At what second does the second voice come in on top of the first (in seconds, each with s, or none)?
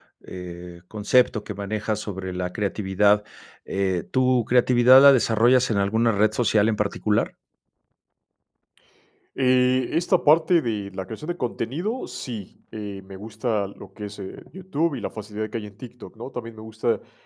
none